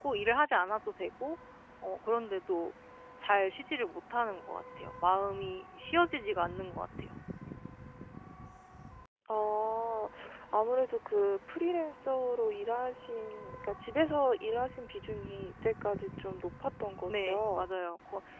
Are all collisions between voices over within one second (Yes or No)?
Yes